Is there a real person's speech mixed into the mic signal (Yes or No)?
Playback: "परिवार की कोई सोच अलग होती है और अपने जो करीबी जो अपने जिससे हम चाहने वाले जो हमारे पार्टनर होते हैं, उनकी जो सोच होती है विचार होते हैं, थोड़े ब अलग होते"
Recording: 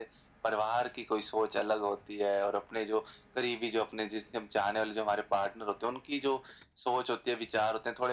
No